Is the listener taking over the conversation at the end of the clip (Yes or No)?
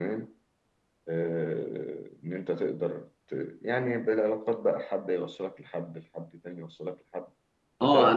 Yes